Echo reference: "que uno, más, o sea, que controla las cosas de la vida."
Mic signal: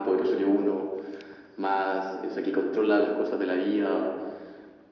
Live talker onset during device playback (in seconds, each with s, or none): none